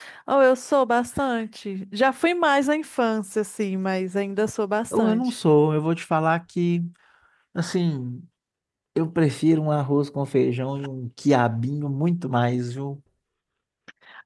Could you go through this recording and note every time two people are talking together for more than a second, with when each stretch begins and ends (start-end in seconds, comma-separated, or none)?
none